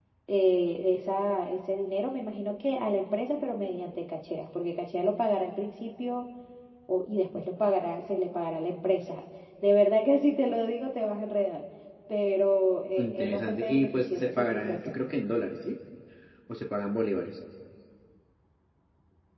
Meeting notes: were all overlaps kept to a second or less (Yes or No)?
No